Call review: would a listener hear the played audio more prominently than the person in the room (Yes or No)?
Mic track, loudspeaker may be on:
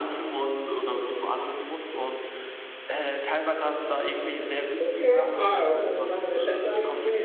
No